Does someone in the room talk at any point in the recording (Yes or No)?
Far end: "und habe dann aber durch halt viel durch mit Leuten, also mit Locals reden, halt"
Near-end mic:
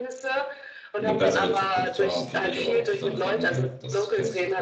Yes